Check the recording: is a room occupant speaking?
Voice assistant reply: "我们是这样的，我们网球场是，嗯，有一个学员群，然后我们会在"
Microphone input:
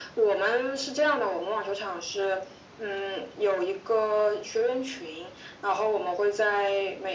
No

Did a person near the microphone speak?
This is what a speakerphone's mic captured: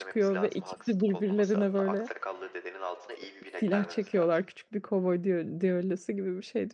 Yes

